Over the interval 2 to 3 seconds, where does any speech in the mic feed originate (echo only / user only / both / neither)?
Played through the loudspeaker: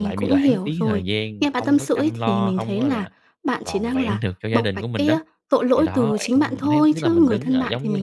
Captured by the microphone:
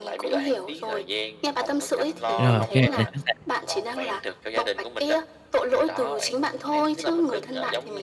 both